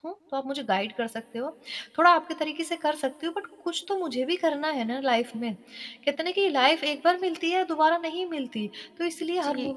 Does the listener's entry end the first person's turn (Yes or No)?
No